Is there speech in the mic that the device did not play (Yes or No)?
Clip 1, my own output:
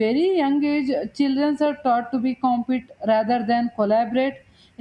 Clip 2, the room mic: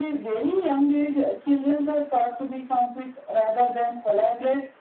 No